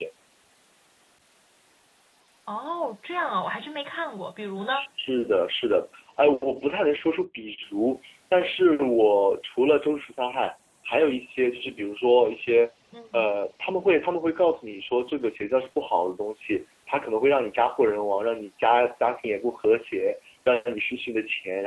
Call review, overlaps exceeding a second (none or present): none